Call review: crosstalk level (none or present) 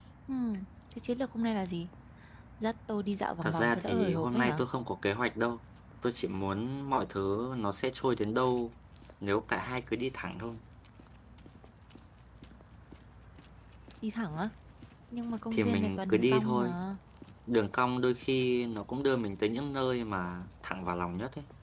present